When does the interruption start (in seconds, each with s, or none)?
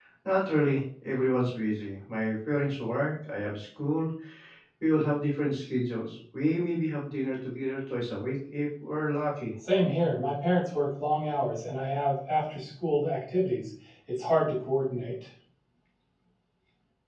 none